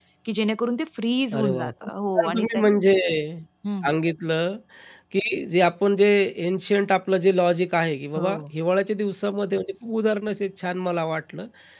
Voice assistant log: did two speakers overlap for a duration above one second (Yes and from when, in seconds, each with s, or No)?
Yes, from 1.3 s